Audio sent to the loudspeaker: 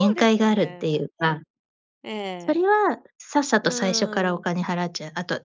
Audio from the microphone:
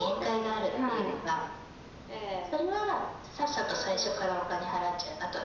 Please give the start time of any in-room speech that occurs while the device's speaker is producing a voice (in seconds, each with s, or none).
0.7 s